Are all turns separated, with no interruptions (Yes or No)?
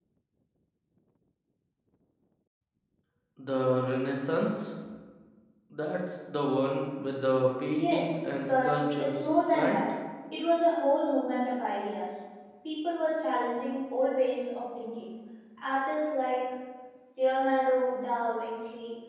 No